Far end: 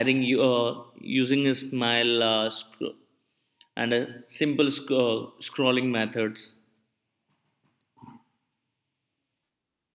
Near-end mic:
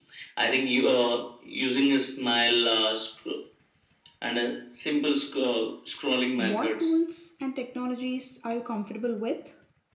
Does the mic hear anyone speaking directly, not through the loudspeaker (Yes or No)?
Yes